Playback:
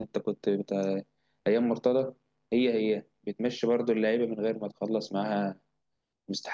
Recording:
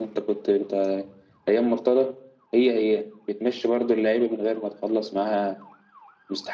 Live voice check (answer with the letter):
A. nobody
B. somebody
A